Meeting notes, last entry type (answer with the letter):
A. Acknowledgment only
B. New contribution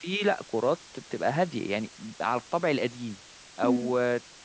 A